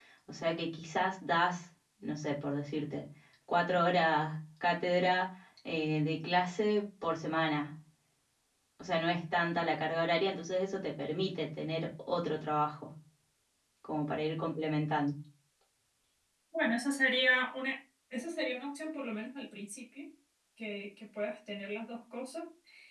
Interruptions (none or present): none